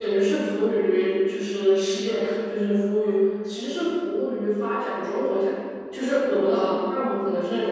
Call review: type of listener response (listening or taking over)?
listening